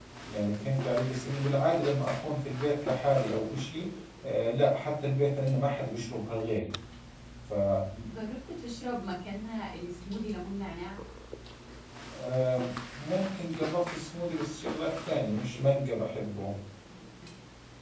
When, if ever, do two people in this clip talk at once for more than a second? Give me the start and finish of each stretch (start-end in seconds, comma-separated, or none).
none